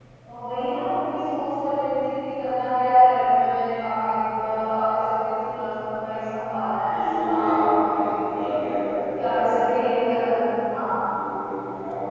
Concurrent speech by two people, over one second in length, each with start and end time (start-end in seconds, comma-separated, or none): 6.7-8.5